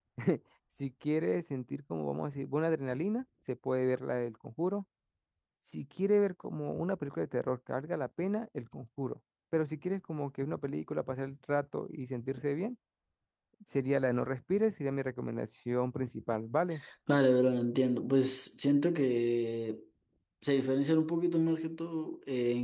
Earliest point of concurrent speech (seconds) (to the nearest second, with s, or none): none